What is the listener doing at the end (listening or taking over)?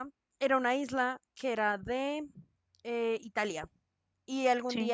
listening